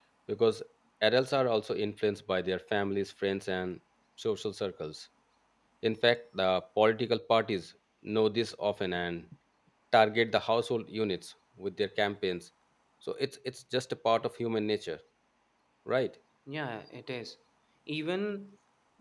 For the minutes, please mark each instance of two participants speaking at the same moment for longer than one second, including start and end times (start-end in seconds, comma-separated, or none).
none